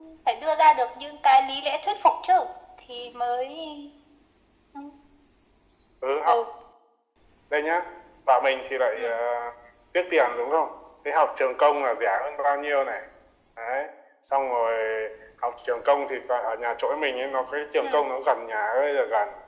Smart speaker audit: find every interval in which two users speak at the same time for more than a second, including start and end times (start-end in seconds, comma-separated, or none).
none